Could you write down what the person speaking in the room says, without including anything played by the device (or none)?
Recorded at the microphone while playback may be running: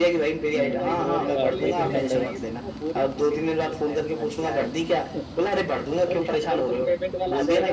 हम्म वो तो आपको ही करना पड़ेगा